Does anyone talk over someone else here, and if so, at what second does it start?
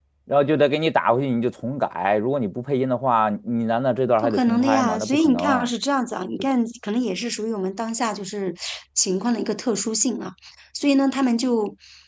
4.2 s

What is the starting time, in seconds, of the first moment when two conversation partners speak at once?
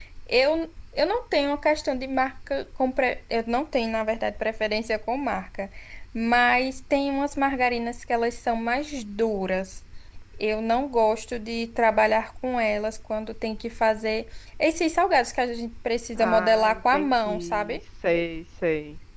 16.2 s

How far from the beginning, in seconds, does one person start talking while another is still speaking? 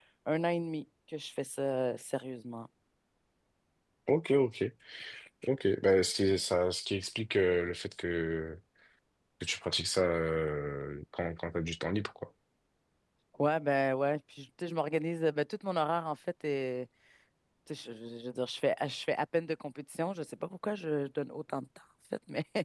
none

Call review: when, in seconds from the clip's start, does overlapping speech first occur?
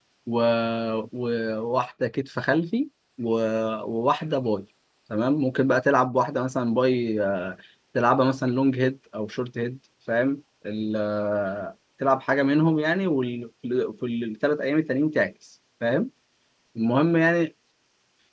none

